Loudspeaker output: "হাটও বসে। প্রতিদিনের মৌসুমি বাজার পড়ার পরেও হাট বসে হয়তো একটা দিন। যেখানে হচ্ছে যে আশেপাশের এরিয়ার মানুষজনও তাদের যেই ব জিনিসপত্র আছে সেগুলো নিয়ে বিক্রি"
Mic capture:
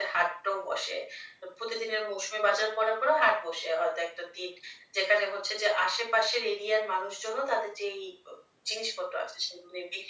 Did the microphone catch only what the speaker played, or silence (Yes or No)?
Yes